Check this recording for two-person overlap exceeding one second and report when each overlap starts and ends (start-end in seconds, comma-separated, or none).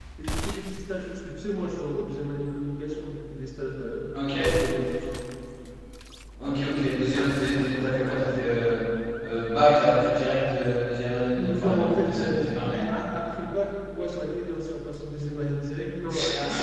11.3-12.8